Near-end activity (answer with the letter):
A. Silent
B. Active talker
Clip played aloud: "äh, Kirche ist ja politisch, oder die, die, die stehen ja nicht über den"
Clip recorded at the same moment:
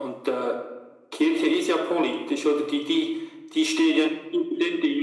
A